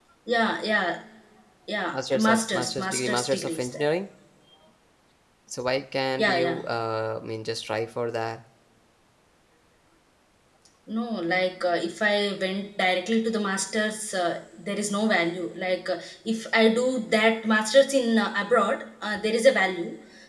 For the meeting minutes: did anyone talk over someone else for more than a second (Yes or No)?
Yes